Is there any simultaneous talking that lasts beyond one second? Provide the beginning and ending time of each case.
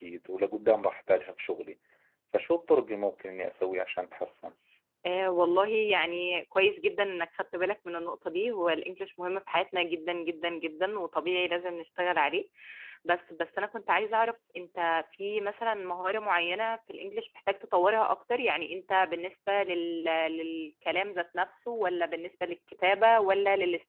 none

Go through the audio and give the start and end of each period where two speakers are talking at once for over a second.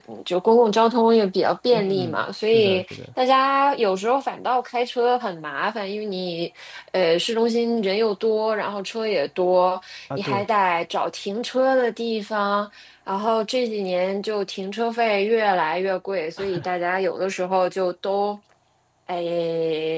1.7-3.0

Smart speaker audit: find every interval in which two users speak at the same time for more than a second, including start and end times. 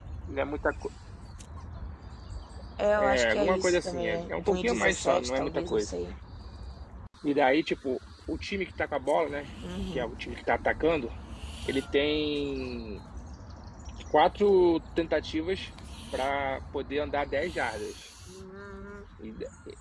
3.0-5.9

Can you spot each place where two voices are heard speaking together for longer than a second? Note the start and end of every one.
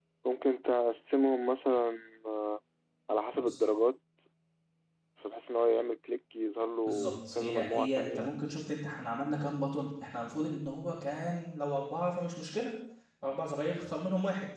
6.9-8.3

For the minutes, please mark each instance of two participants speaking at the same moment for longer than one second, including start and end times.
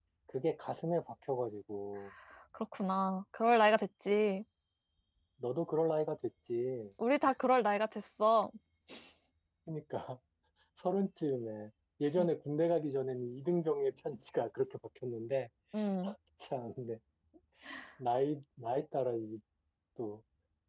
none

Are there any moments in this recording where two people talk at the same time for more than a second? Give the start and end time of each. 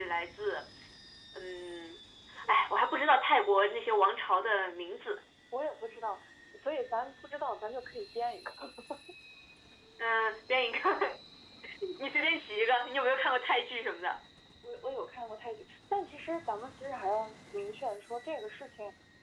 none

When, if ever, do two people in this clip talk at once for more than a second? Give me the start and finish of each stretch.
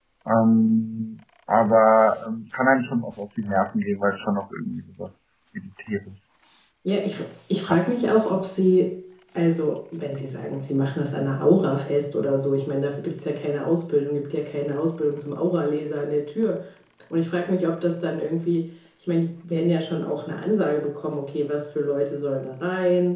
none

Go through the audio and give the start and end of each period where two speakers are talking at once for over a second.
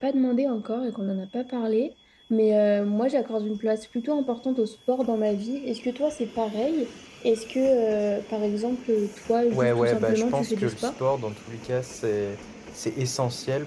9.5-10.9

